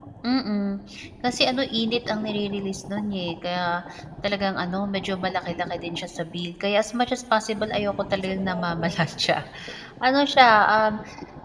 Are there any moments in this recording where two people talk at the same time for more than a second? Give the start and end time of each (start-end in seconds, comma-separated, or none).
7.5-9.2